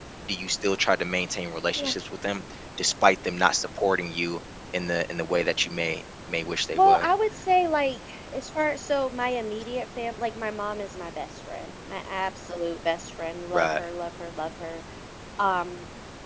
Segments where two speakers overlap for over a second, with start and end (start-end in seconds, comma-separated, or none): none